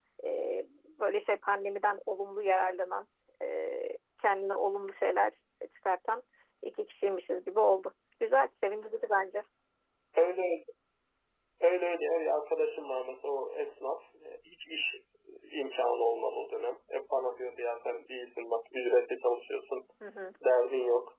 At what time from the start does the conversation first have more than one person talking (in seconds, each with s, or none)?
none